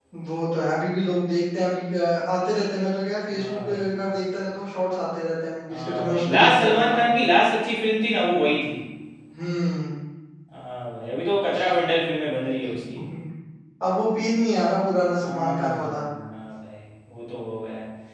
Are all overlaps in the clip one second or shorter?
No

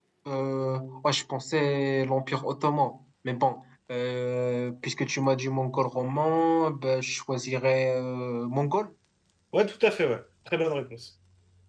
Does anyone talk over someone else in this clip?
No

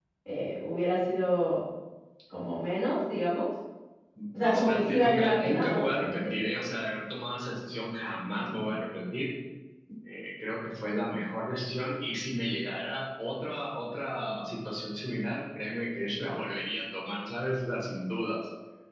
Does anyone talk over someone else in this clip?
Yes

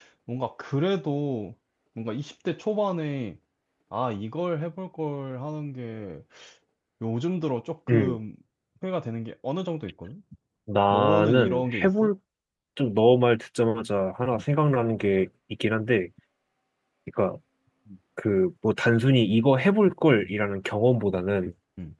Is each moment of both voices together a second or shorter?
No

